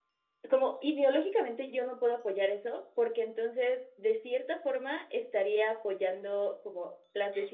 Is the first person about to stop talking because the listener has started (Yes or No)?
No